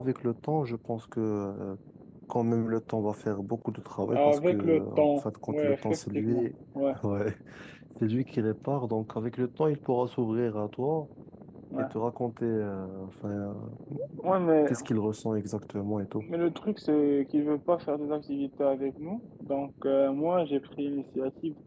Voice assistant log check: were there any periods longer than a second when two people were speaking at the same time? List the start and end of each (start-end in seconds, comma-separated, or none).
4.1-6.4